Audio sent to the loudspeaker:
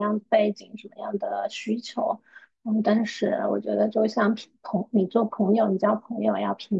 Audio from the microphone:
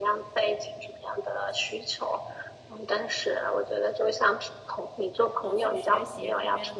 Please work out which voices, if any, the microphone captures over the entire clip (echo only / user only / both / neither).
both